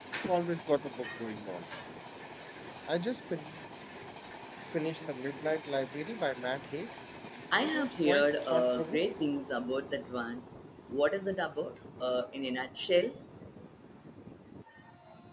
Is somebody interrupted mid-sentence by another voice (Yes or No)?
Yes